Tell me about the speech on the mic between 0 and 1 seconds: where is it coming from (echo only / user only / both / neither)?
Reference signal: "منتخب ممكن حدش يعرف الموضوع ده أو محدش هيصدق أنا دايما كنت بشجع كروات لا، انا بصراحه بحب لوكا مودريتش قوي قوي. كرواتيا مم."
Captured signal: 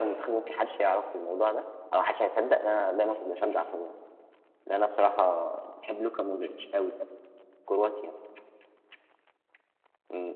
echo only